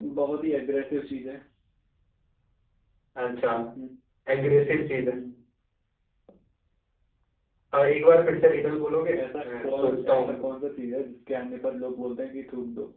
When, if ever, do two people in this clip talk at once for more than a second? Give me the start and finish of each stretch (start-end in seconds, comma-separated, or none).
9.2-10.4